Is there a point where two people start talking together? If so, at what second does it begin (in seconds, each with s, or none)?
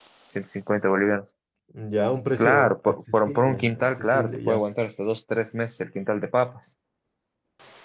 2.4 s